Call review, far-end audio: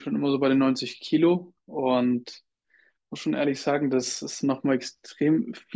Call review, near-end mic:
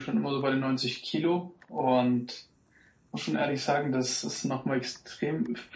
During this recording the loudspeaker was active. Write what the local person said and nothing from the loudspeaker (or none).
none